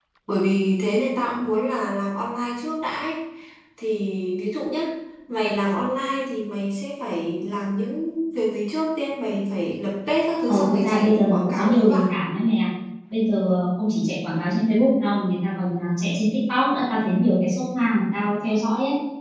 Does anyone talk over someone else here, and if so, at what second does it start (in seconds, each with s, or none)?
10.5 s